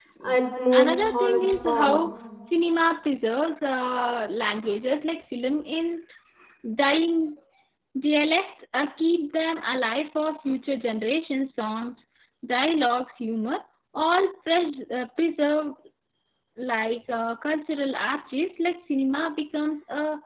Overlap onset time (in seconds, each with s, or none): 0.7 s